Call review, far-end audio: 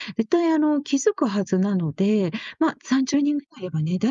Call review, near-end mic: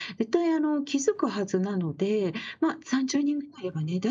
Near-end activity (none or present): none